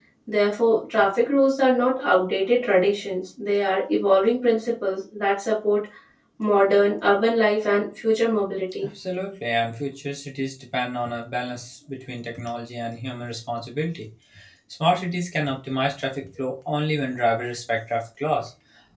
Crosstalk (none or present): none